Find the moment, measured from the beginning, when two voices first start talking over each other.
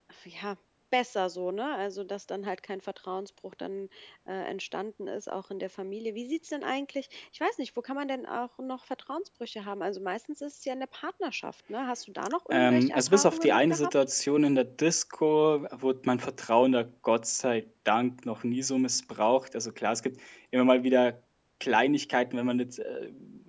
12.5 s

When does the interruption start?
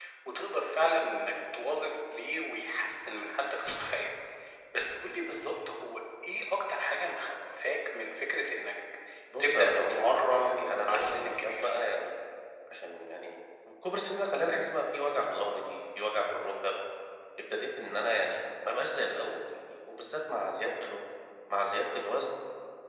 9.4 s

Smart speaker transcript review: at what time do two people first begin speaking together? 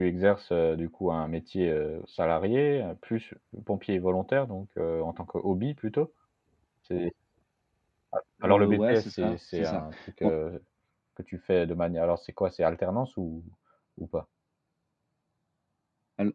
8.4 s

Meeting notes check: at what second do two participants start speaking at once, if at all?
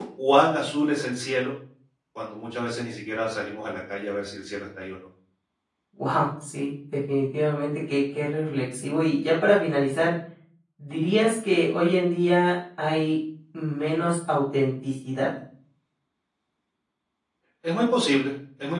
none

